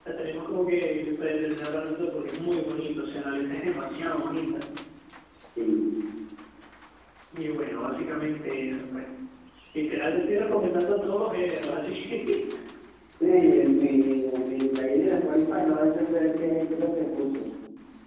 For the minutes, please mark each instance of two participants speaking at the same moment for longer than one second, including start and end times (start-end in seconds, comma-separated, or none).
none